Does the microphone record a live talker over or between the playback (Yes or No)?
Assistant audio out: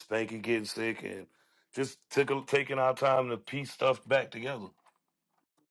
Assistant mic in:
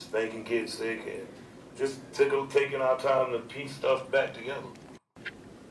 No